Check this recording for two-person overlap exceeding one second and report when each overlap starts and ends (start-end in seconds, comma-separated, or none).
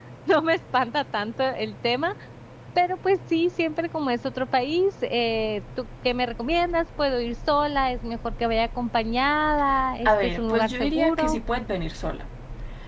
10.1-11.4